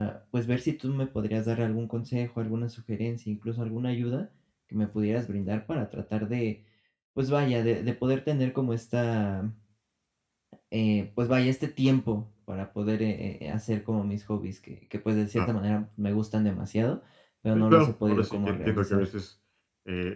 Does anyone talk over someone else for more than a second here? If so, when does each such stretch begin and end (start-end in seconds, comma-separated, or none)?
17.5-19.1